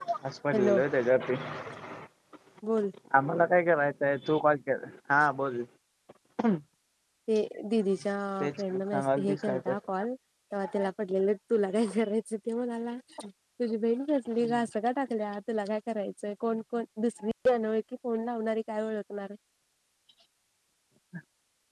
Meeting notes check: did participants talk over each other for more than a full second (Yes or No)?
Yes